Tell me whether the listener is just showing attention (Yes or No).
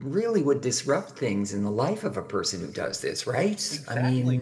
No